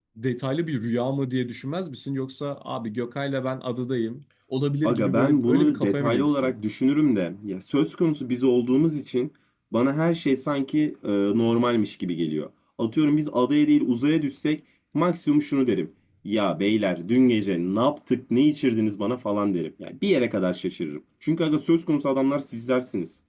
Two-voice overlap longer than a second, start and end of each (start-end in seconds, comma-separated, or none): 4.8-6.5